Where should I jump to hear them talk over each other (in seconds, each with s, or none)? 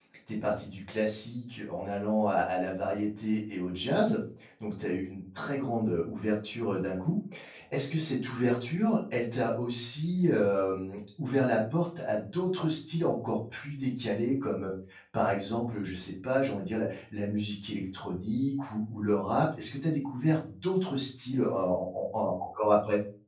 none